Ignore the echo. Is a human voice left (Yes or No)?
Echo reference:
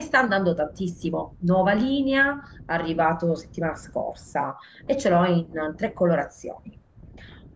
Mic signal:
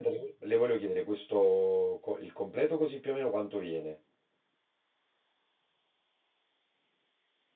Yes